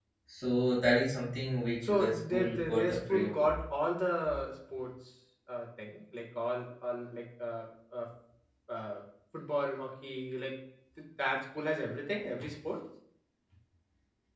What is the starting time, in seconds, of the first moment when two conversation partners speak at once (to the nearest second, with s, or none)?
2 s